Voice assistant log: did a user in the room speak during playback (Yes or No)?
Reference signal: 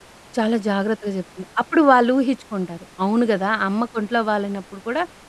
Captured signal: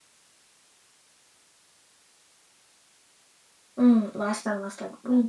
Yes